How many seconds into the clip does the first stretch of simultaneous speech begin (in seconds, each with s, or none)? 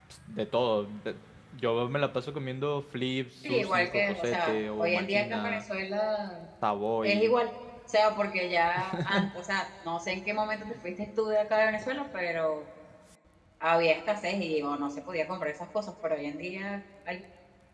3.4 s